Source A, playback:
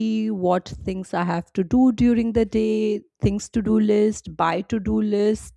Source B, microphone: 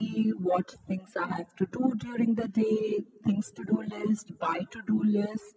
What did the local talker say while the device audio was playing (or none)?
none